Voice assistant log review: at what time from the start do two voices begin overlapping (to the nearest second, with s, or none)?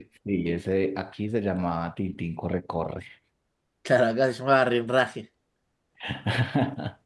none